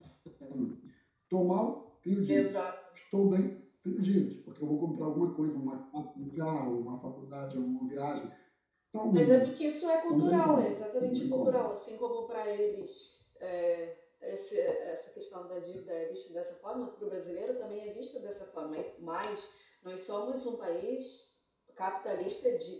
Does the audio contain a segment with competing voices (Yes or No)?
Yes